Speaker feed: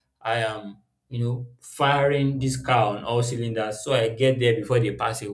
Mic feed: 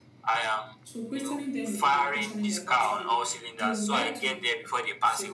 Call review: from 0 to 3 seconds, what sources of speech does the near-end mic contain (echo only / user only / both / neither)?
both